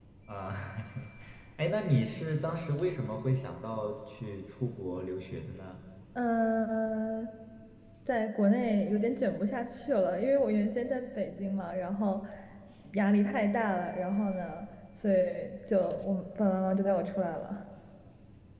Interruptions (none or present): none